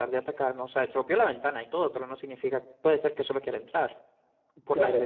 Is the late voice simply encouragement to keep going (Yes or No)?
No